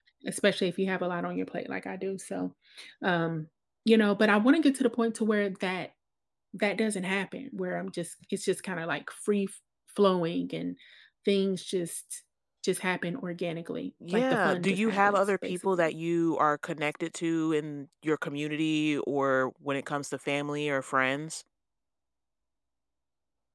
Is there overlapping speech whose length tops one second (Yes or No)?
Yes